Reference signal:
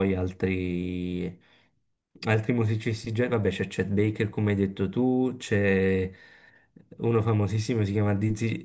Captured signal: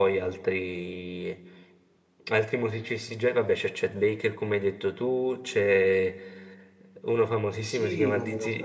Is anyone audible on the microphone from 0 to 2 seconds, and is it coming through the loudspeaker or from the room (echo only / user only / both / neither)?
echo only